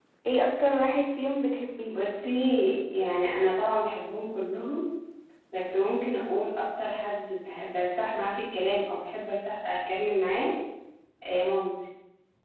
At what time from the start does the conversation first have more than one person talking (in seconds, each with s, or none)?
none